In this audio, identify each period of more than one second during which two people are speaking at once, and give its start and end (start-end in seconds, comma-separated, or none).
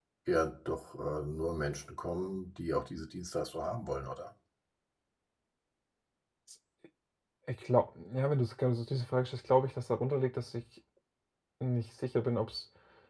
none